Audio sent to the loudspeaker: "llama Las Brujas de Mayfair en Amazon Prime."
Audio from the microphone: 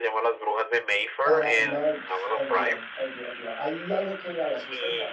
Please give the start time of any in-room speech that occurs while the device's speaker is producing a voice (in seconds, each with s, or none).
1.2 s